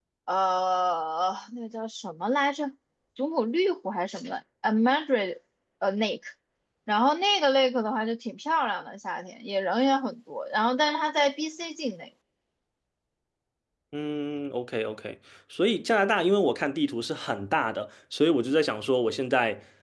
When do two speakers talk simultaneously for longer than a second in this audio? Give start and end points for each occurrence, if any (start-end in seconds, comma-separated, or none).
none